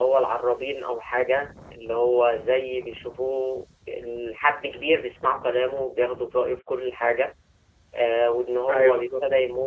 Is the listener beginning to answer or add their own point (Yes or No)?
No